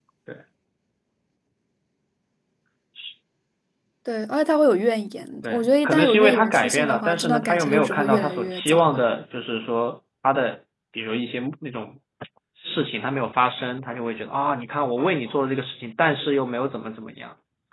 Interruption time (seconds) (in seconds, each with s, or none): 5.4 s